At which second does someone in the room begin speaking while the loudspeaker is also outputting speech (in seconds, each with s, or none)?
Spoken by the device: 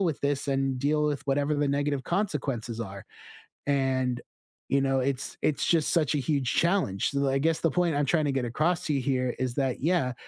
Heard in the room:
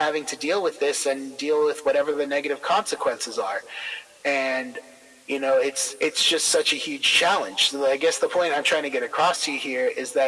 none